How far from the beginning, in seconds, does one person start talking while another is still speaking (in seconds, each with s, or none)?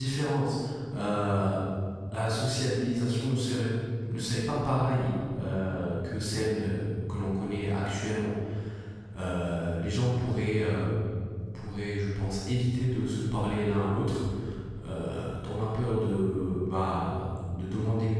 none